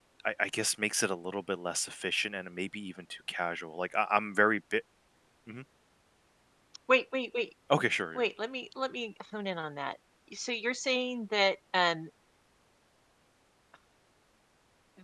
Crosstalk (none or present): none